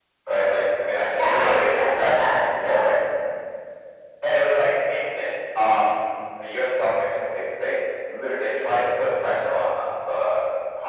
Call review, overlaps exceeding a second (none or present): present